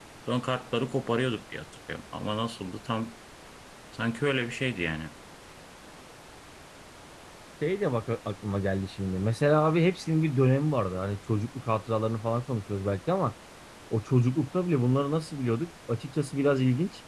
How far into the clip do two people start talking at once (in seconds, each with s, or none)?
none